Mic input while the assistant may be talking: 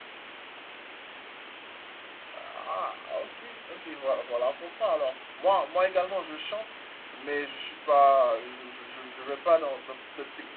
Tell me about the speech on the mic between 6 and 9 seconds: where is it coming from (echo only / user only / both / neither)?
user only